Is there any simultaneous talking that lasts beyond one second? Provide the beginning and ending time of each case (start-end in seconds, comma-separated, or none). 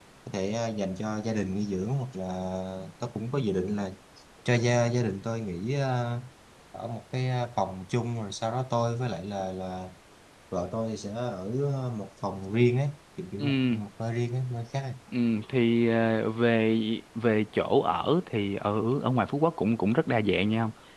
none